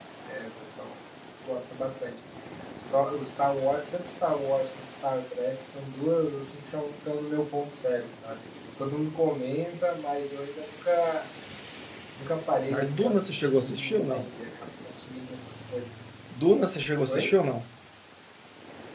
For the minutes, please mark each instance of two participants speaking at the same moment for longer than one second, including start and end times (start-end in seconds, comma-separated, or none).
12.7-14.2